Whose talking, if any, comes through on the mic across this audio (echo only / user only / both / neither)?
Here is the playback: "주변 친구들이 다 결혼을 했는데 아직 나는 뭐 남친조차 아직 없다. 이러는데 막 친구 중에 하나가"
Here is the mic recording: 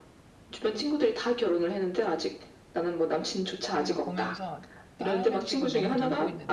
both